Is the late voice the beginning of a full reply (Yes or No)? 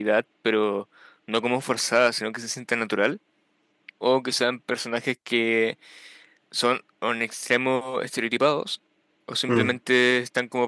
No